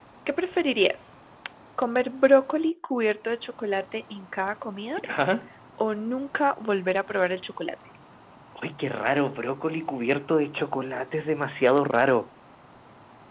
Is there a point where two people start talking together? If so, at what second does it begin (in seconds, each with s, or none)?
none